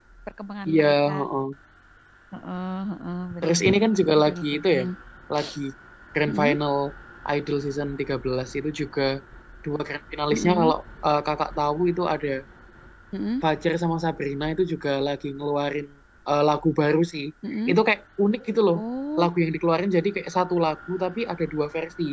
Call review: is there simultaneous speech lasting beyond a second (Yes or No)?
Yes